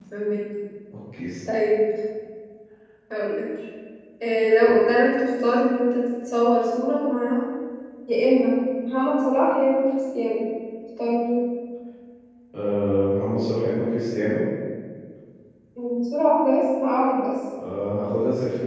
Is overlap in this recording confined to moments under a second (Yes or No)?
Yes